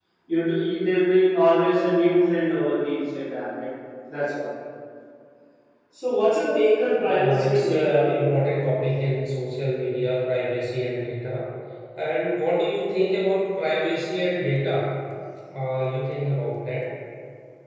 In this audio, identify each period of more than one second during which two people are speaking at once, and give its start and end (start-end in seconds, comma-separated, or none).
7.0-8.2